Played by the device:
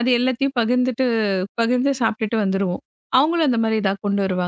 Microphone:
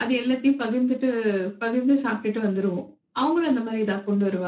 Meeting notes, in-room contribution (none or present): none